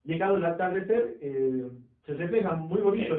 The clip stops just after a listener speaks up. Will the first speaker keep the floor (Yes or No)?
No